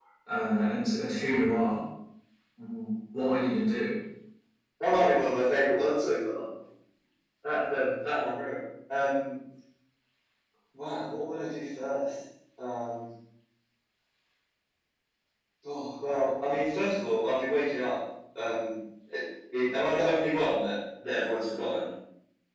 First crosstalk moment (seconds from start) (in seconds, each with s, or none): none